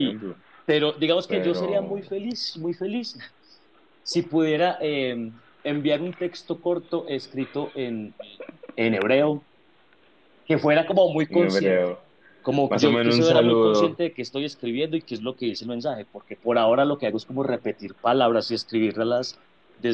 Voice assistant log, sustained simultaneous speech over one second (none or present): present